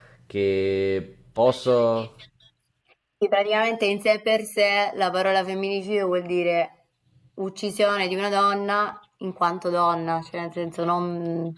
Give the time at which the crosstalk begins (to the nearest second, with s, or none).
none